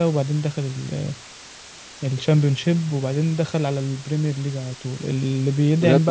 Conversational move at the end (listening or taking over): listening